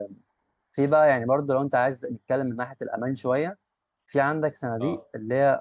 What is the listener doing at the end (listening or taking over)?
listening